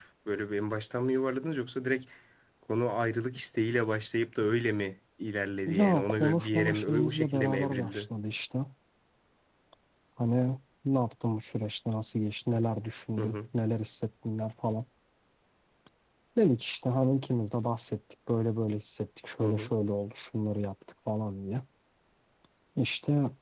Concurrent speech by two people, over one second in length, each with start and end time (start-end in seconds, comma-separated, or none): 5.6-8.1